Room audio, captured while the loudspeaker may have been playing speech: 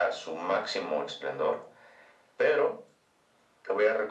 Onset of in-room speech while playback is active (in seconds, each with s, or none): none